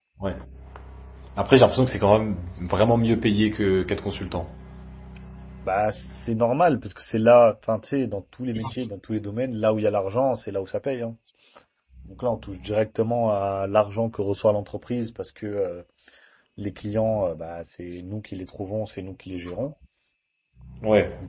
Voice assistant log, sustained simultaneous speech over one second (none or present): none